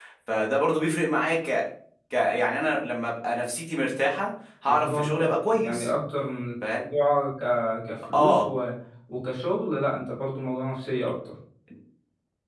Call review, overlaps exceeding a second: present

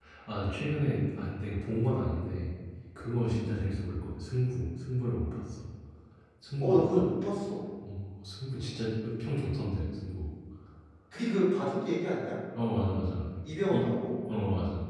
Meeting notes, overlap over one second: none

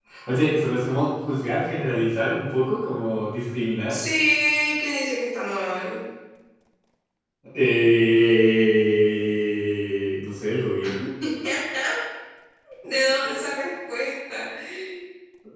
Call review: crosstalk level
none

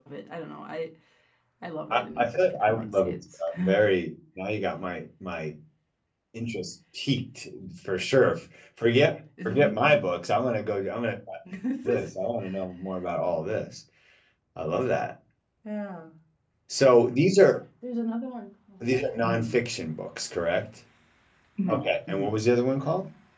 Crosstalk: present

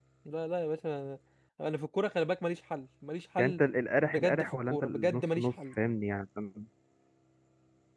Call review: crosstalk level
present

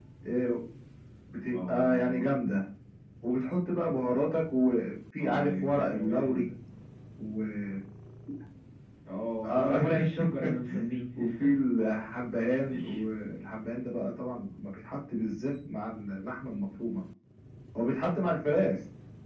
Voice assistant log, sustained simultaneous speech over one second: present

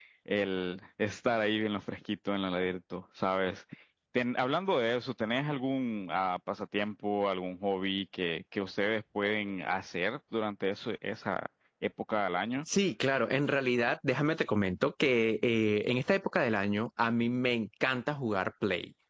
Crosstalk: none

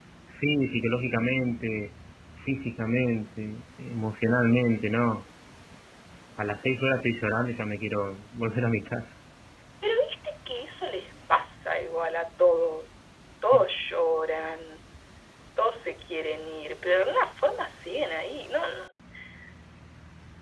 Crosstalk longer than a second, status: none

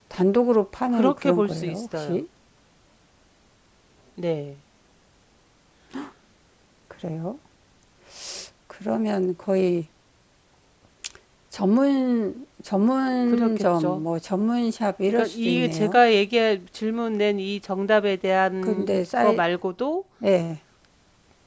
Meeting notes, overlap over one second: present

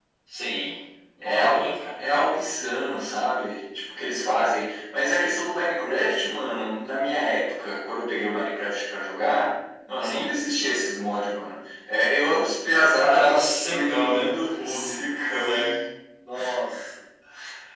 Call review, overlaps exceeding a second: present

